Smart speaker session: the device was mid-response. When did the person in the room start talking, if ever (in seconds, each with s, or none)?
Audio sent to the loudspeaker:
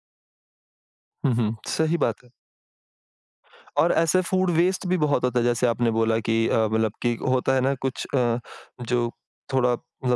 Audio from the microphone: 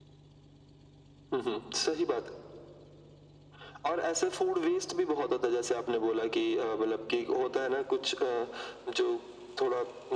none